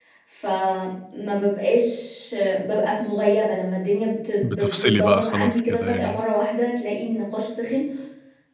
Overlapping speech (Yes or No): Yes